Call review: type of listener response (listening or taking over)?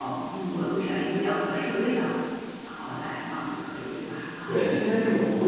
taking over